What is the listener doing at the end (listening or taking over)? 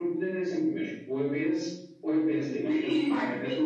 taking over